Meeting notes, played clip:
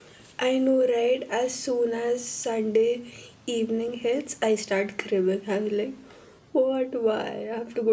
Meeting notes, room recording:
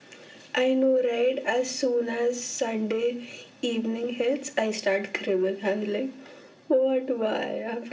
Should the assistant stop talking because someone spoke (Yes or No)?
No